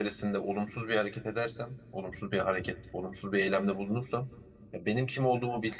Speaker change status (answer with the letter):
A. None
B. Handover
A